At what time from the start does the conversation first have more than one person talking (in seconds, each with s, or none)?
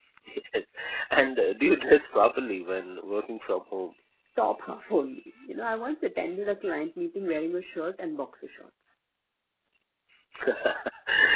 none